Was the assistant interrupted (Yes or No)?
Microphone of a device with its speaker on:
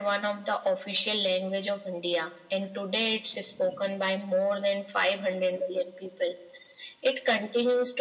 No